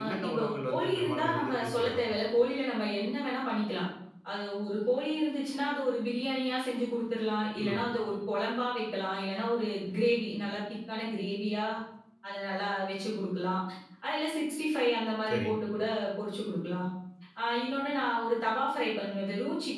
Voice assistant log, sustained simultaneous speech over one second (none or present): present